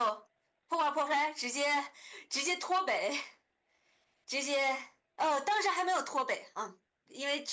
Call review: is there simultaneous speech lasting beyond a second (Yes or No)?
No